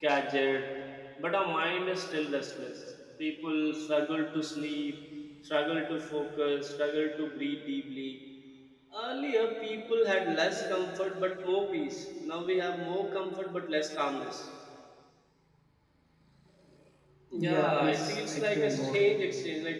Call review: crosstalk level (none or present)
present